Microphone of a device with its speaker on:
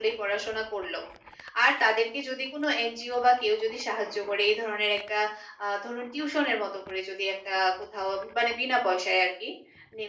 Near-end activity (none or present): none